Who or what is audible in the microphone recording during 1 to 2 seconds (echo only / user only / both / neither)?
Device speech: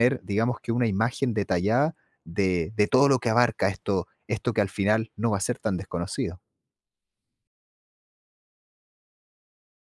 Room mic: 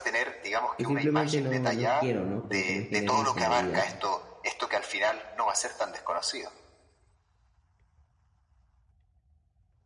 both